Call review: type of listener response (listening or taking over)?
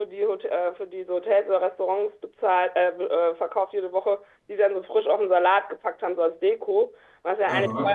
listening